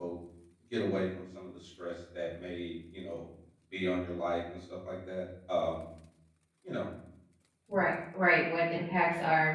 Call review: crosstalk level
none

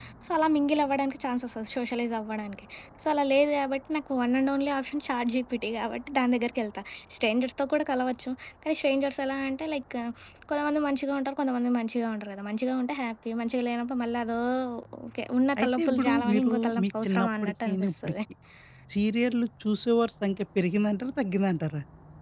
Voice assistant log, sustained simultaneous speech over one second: present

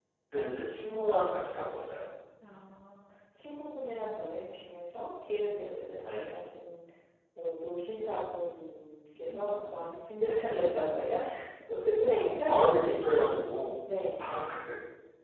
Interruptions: present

